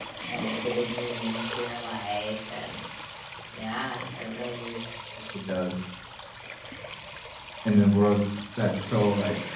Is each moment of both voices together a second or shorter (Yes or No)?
Yes